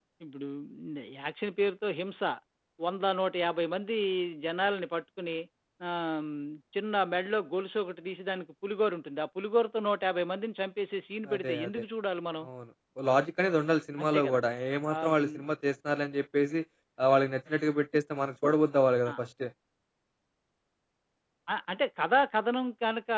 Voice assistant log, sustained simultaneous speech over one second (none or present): none